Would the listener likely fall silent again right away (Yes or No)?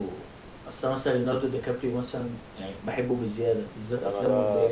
No